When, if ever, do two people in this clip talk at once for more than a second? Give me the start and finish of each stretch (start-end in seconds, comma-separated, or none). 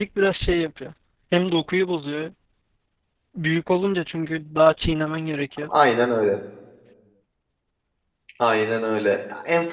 none